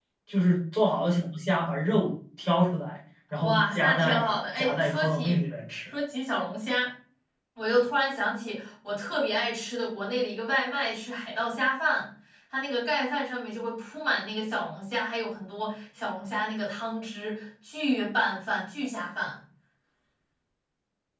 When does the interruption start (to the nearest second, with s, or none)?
3 s